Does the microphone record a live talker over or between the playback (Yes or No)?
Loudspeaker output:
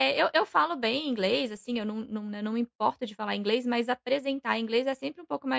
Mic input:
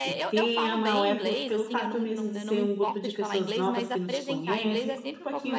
Yes